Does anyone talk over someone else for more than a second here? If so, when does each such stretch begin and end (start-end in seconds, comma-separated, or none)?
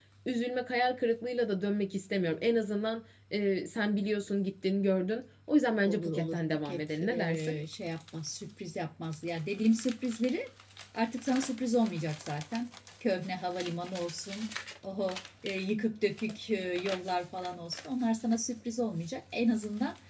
5.9-7.6